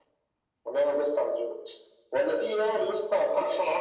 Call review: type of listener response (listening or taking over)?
listening